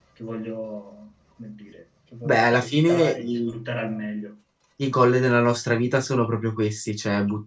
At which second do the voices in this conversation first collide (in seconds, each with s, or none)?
2.2 s